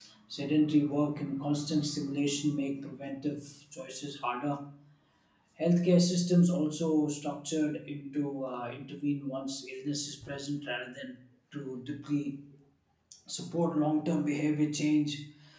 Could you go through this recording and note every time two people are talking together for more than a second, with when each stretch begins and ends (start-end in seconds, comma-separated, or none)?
none